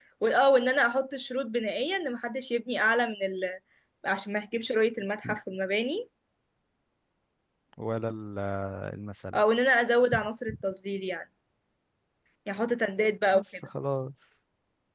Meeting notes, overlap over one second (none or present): none